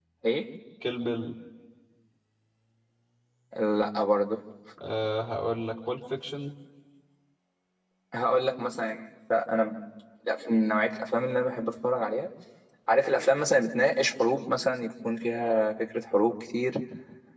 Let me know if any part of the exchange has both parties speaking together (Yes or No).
No